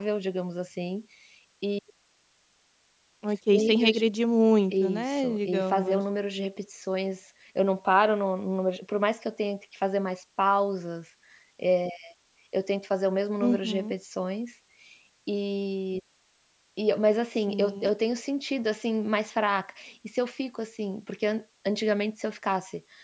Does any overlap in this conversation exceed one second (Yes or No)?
Yes